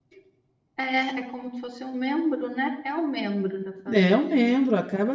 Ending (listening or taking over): taking over